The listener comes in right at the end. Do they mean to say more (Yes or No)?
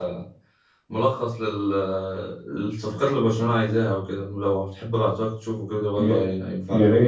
Yes